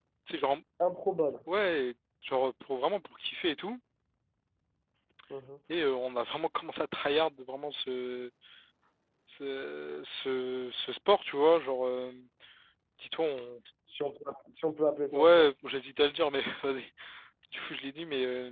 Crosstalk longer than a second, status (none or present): none